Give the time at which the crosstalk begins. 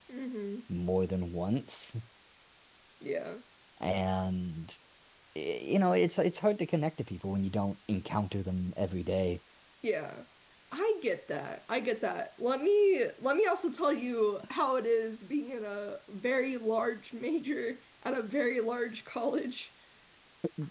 none

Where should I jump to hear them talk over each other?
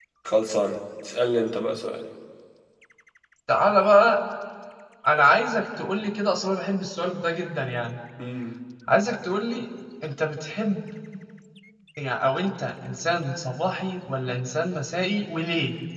none

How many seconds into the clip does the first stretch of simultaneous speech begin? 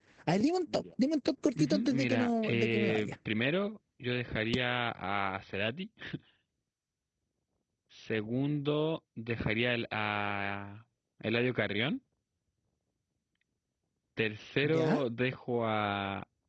2 s

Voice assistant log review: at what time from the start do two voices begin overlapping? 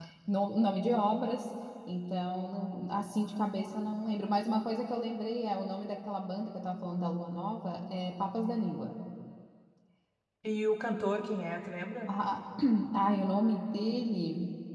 none

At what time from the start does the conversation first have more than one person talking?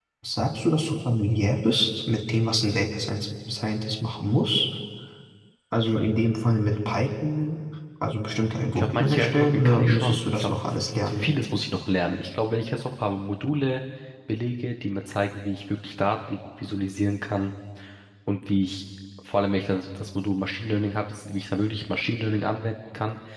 9 s

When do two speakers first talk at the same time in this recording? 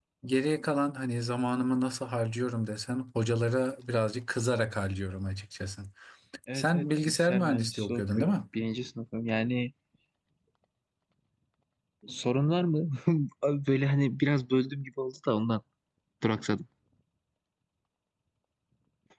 7 s

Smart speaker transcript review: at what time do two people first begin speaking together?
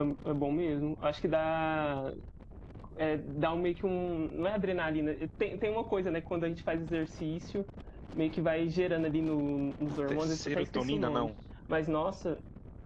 10 s

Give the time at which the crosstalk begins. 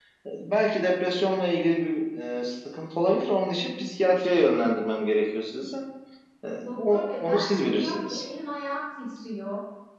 7 s

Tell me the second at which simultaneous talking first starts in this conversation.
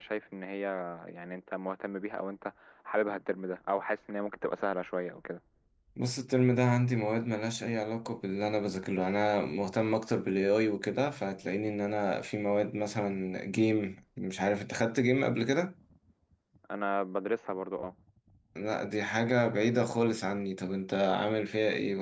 none

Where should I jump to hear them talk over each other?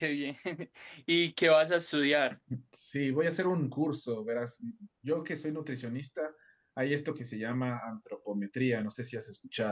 none

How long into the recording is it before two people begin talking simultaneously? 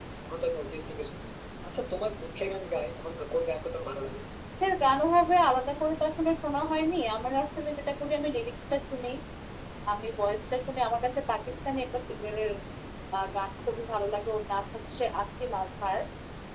none

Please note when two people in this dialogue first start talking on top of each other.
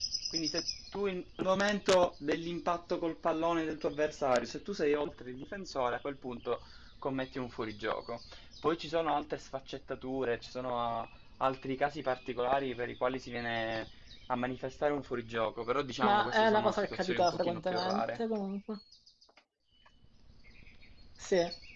16 s

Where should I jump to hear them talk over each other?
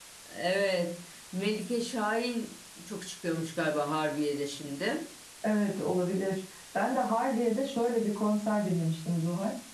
none

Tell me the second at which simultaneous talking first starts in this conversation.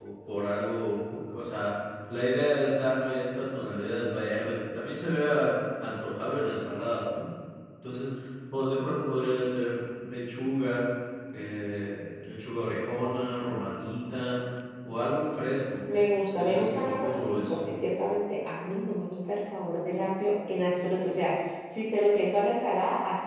16 s

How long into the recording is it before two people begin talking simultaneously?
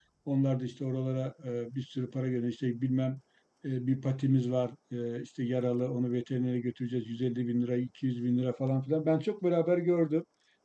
none

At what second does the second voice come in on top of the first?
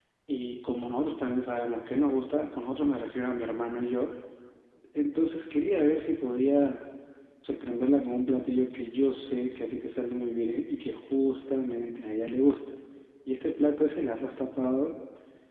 none

